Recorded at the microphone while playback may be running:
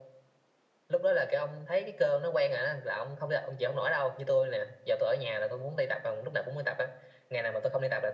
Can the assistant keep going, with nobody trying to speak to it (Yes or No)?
Yes